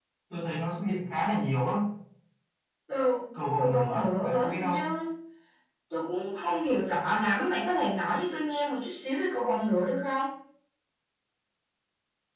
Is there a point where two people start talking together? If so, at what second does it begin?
3.6 s

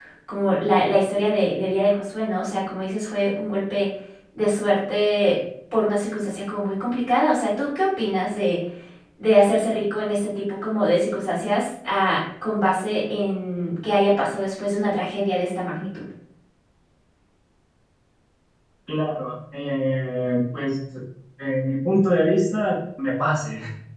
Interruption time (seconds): none

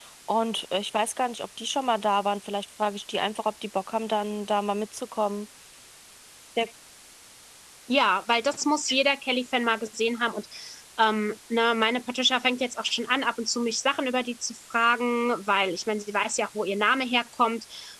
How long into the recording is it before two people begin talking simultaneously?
none

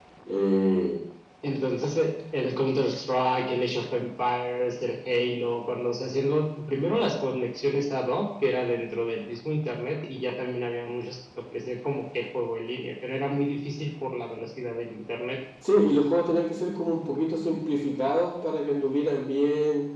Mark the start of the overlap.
none

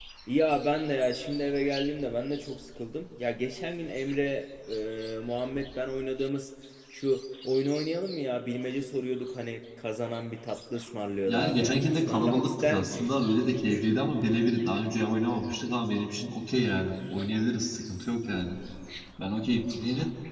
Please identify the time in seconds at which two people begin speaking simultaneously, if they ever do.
11.3 s

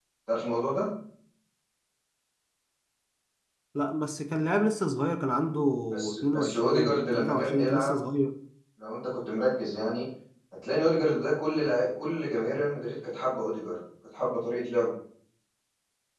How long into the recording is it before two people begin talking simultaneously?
6.2 s

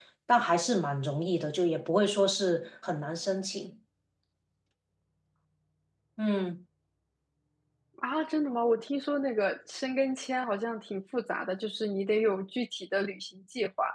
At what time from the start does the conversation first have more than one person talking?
none

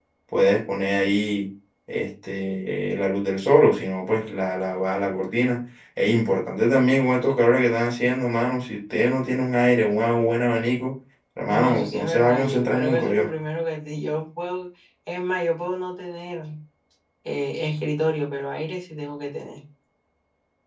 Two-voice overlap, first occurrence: 11.5 s

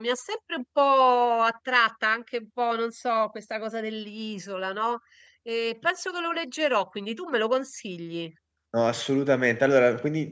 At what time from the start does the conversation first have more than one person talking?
none

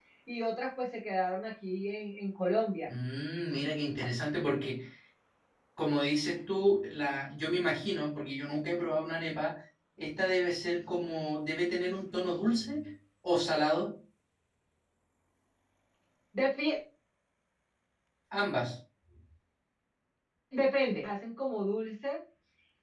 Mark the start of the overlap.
none

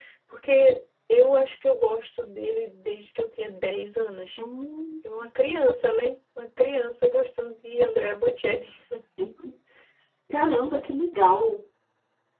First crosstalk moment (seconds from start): none

